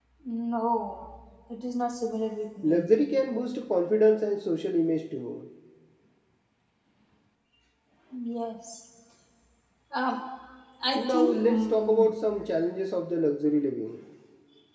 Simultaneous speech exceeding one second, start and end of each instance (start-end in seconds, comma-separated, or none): 10.9-12.1